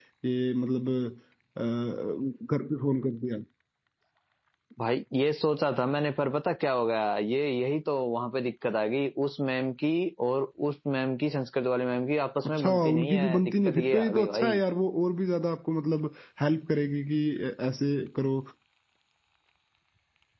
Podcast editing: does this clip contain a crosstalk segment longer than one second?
Yes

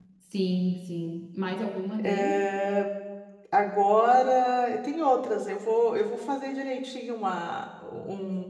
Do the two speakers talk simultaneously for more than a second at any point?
No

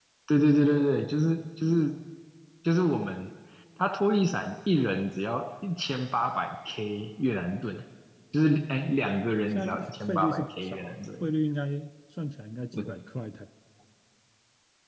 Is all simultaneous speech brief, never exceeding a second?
No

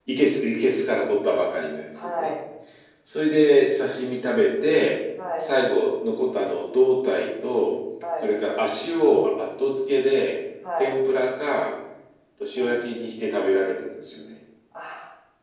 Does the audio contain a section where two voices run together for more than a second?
No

